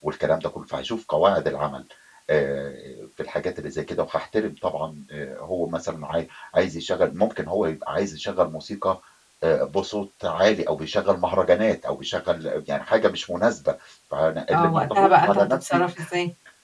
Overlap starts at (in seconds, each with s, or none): 14.5 s